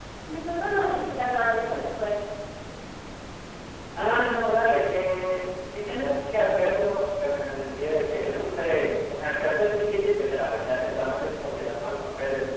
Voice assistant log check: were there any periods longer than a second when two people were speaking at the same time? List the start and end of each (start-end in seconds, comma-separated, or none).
none